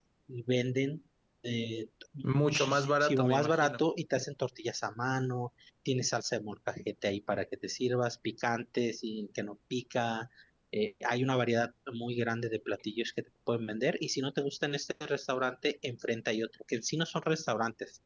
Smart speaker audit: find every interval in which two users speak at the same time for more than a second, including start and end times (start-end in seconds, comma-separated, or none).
2.2-3.8